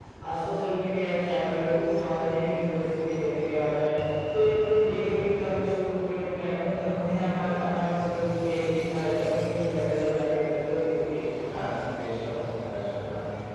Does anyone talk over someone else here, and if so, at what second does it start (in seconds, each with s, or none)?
none